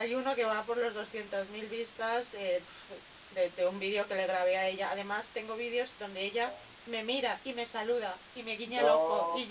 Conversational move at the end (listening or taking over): listening